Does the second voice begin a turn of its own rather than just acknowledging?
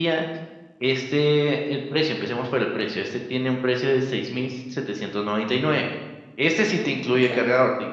No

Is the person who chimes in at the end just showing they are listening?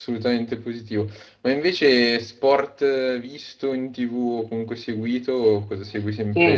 No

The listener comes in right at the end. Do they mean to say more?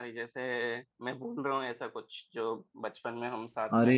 Yes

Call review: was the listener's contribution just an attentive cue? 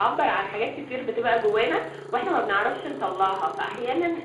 Yes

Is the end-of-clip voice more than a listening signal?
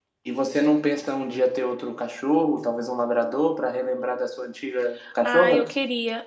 Yes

